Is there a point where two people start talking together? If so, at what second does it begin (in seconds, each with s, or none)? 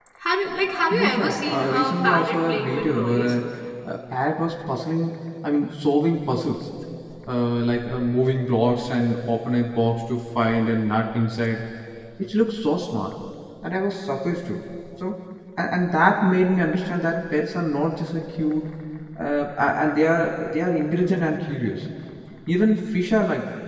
0.9 s